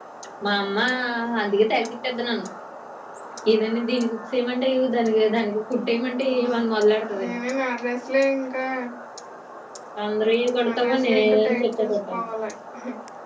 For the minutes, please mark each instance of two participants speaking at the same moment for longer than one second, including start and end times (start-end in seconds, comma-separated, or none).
10.6-12.2